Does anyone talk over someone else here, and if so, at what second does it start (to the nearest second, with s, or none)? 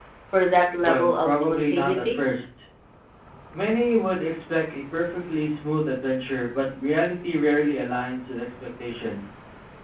1 s